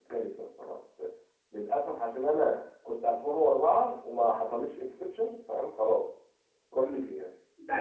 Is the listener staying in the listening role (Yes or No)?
No